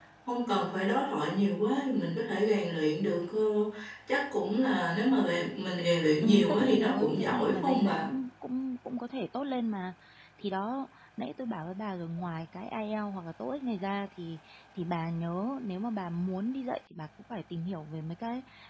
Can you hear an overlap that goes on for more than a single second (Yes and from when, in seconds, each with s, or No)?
Yes, from 6.2 s